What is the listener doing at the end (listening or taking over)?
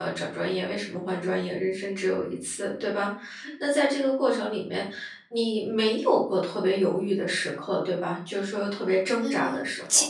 taking over